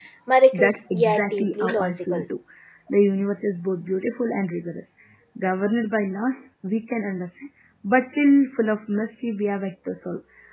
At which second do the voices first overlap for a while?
0.5 s

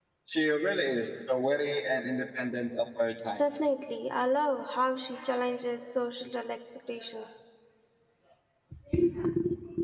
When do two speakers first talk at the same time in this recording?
none

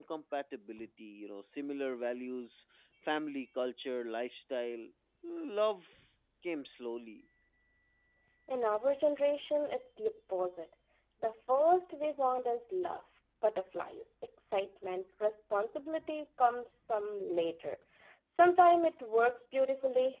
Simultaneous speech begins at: none

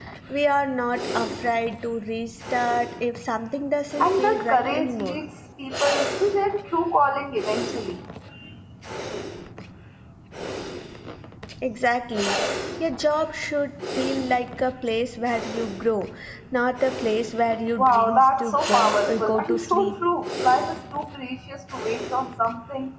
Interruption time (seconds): 4.0 s

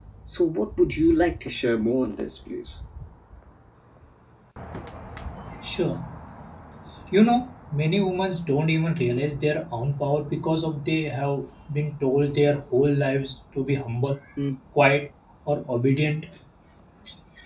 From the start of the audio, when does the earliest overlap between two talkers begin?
none

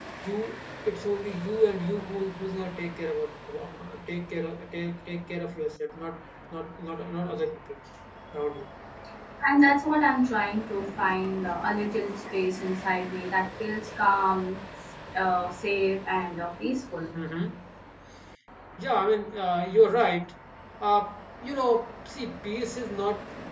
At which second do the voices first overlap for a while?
none

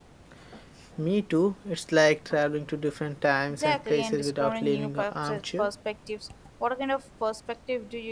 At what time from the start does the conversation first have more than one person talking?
3.5 s

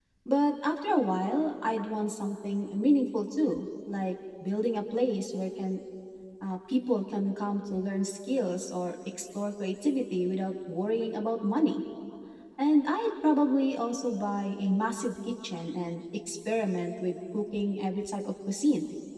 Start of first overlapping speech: none

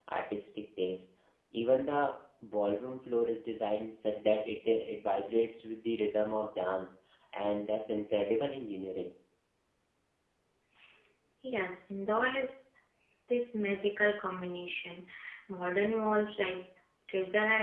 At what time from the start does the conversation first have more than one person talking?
none

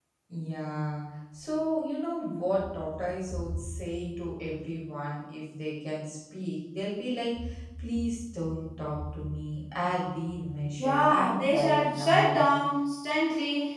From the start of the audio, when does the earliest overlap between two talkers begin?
10.8 s

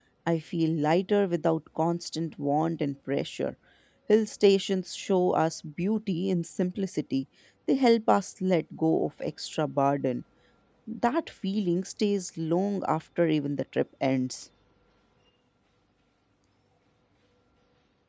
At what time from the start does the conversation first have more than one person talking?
none

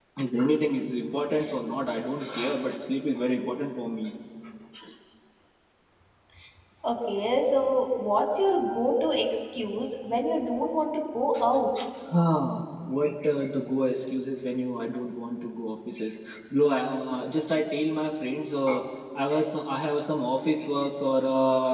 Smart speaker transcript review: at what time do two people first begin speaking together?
none

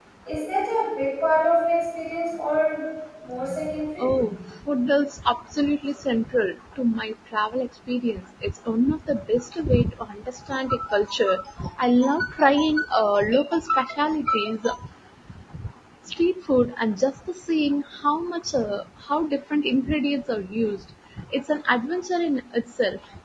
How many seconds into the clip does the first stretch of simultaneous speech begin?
none

